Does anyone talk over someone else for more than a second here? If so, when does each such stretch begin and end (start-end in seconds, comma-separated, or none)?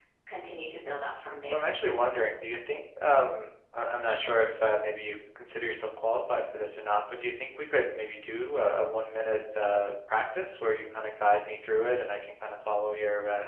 none